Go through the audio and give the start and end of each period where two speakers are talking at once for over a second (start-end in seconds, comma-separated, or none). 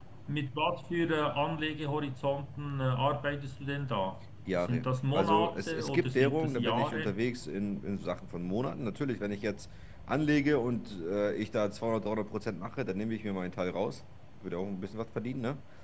4.5-7.2